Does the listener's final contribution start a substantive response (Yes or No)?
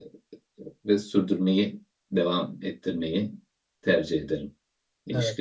Yes